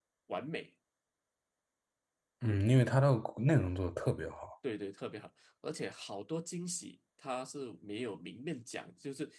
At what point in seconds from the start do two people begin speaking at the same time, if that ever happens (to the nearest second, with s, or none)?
none